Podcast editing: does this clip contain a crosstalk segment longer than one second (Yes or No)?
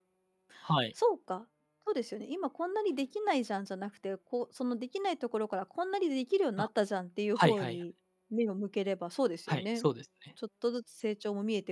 No